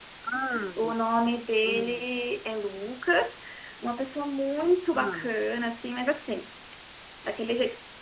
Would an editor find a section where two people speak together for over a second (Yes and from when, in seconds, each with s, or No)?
No